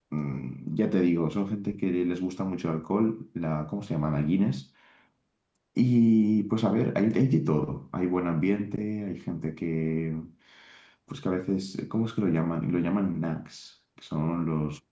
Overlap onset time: none

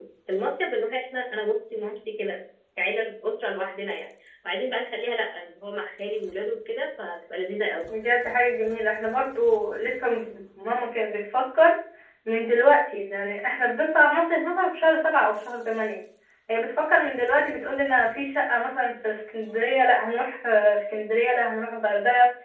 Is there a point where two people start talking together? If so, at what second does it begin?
none

